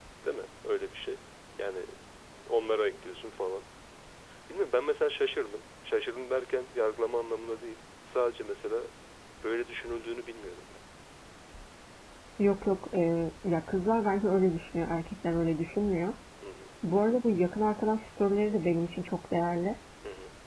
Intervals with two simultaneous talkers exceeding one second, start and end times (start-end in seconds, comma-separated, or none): none